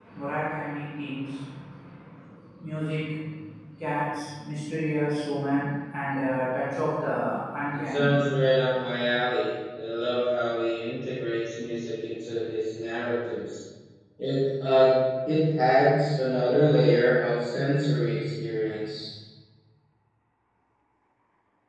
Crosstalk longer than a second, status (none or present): none